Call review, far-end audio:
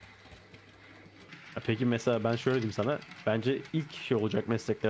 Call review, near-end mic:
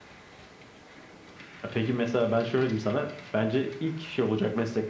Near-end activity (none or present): none